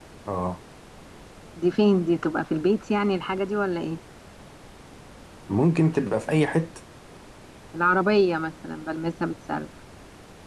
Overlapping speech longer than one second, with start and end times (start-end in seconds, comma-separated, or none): none